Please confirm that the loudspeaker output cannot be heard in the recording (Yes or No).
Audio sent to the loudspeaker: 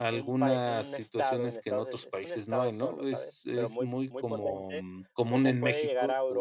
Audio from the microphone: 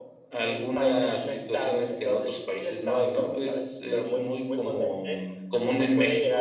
No